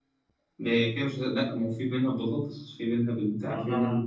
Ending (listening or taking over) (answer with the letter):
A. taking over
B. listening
A